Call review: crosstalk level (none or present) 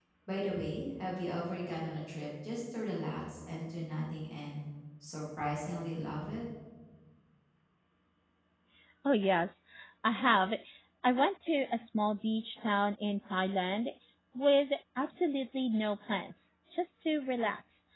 none